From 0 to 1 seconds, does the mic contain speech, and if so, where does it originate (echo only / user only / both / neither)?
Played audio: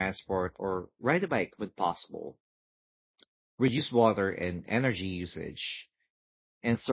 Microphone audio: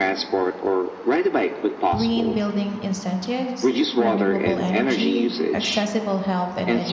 echo only